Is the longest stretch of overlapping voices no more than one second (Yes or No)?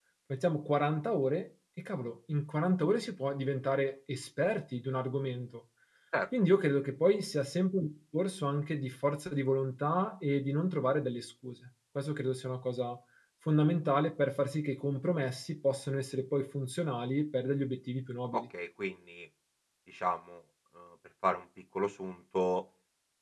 Yes